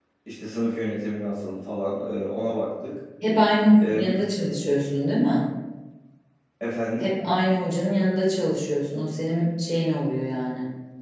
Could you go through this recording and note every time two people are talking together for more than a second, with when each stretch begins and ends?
none

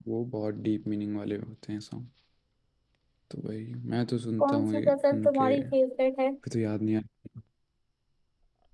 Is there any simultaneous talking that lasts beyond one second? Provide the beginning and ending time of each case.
4.4-5.8

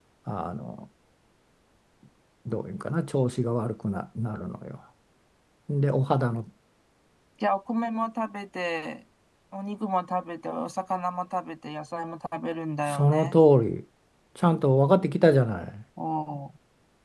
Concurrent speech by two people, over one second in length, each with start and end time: none

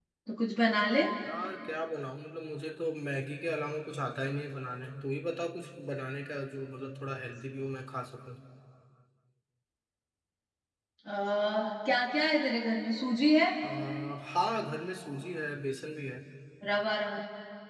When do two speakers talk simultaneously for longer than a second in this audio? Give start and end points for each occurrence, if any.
none

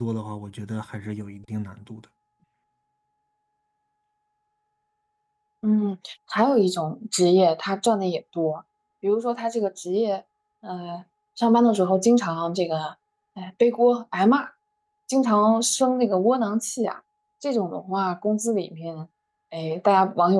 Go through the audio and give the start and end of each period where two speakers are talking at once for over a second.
none

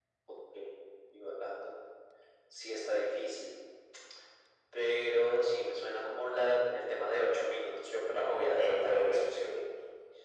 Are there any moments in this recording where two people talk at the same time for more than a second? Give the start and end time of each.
8.1-9.5

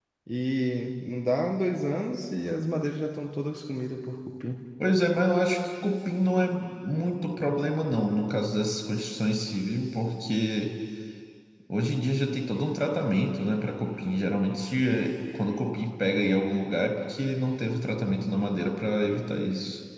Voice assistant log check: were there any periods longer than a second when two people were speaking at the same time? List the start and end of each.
none

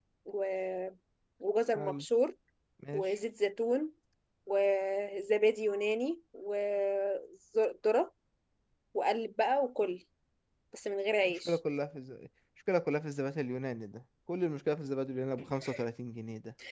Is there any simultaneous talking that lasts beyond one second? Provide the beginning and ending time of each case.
none

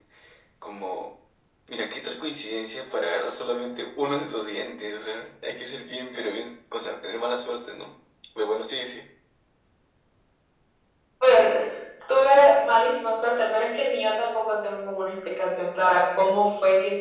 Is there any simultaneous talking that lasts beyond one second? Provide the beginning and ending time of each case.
none

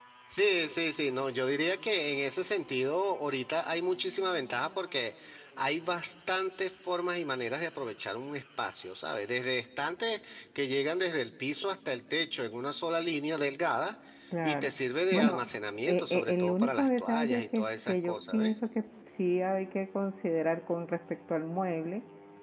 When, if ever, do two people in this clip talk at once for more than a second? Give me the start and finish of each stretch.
15.8-18.6

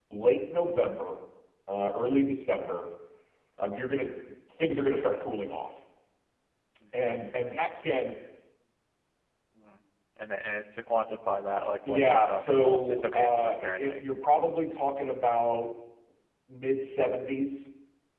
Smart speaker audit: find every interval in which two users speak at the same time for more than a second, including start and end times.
11.8-14.0

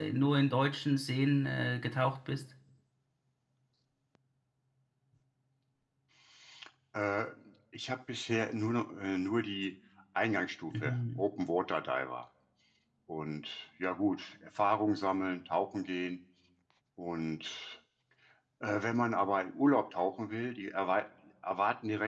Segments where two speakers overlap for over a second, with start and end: none

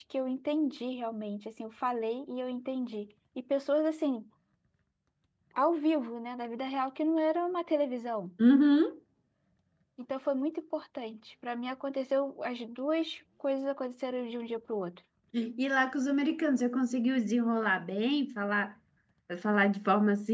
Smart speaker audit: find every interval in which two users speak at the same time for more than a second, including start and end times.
none

